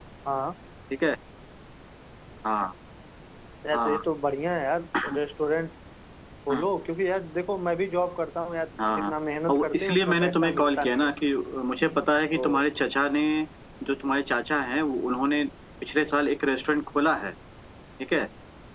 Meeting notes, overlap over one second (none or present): present